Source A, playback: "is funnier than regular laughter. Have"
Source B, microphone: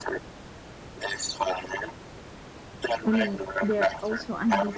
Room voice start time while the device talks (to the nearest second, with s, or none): 3 s